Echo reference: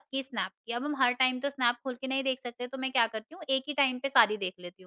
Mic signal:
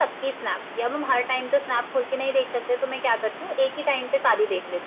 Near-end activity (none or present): none